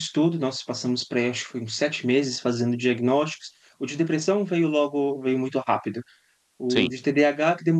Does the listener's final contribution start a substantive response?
No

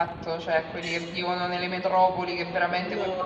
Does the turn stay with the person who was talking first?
Yes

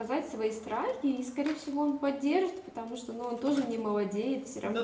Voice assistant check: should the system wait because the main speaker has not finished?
No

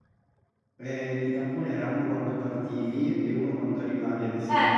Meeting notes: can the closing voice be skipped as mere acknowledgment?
No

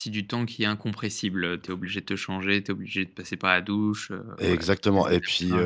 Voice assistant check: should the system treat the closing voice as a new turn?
Yes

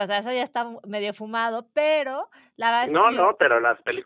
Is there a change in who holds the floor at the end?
Yes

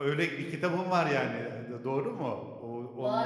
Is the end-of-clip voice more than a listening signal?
Yes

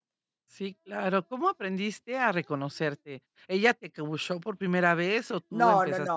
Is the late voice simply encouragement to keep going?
No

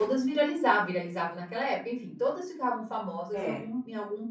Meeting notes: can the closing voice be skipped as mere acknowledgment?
Yes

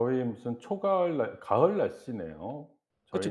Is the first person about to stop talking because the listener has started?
Yes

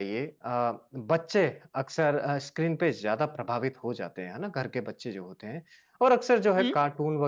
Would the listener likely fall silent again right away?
Yes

